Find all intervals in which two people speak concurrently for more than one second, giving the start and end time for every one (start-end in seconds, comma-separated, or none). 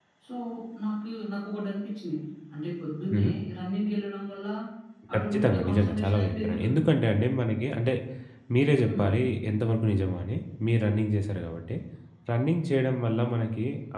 5.2-6.8